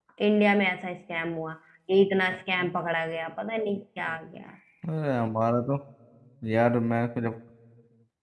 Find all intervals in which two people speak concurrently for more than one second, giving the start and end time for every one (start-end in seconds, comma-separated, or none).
none